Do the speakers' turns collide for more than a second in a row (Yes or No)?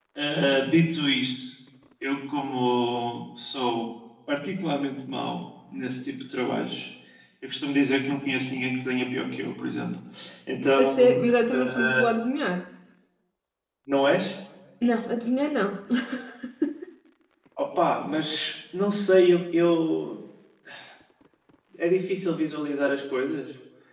No